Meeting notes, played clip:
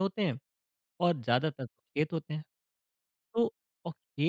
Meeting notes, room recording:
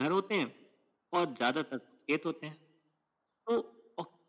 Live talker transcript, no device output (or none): none